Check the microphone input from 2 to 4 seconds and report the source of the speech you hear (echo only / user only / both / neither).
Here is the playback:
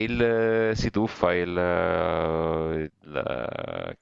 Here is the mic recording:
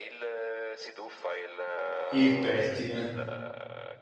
both